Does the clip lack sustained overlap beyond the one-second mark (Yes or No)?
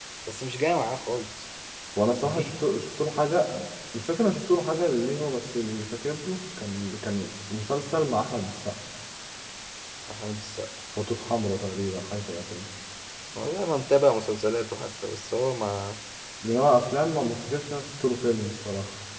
Yes